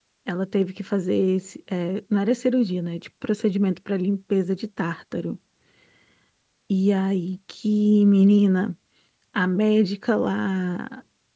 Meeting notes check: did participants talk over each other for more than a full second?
No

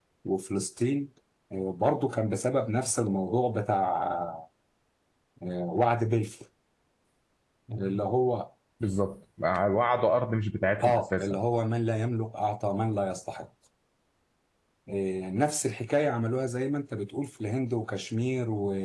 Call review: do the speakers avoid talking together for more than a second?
Yes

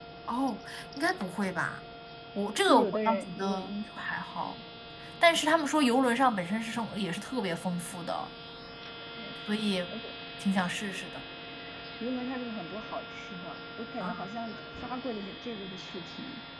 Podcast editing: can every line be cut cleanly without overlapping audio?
No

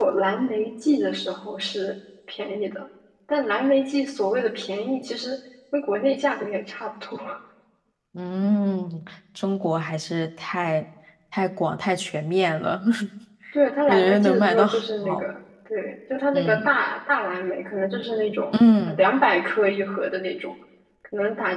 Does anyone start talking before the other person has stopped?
Yes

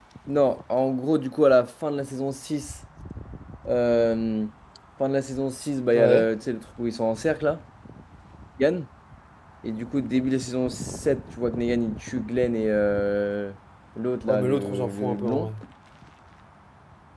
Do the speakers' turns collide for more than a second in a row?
Yes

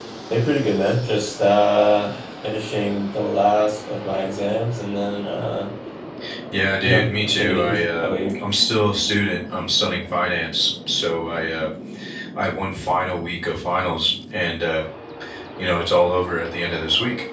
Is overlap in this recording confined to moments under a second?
No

